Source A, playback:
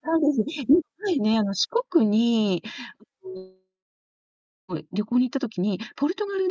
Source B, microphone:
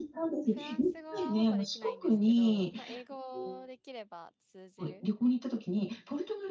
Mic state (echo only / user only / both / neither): both